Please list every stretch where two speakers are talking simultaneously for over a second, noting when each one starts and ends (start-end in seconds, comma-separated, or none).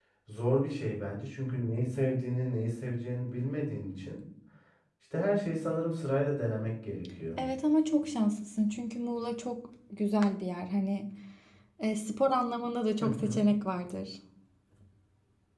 none